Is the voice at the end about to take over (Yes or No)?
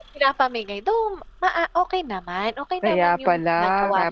Yes